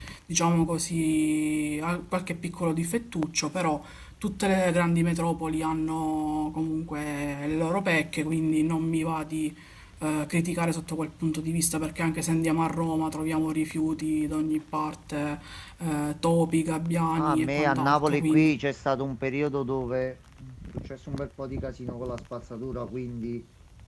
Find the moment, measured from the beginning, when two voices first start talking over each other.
17.1 s

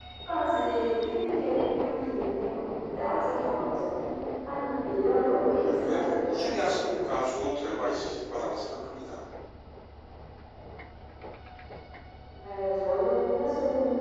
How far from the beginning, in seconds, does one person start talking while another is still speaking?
5.6 s

